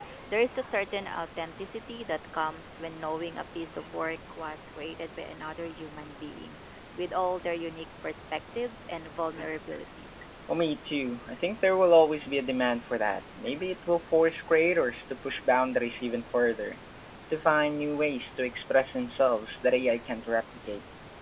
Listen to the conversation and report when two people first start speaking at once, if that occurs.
none

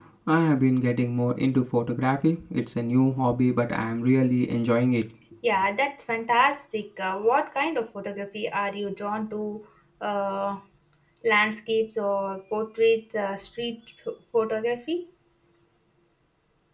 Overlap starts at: none

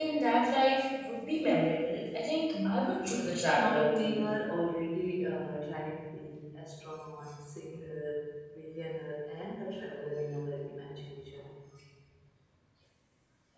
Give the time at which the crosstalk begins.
2.5 s

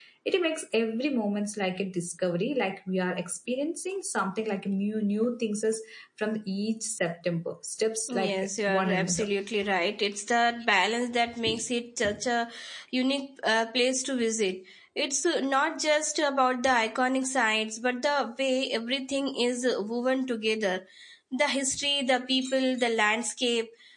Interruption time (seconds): 8.1 s

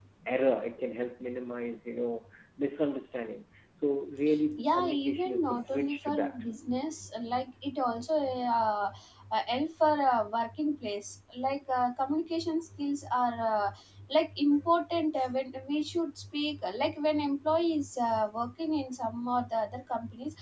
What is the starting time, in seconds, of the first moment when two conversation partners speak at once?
4.5 s

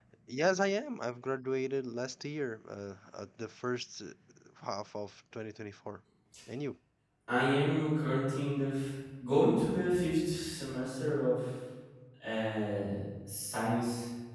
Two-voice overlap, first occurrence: none

